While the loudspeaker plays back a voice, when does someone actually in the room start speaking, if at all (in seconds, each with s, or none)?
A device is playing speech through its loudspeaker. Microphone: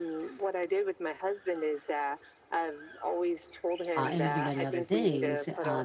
4.0 s